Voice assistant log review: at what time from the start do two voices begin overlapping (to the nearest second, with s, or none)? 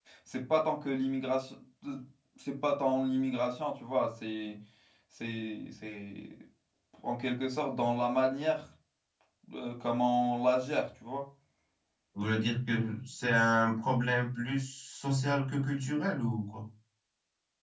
none